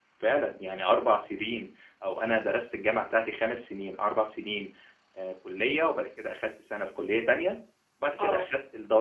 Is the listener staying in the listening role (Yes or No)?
Yes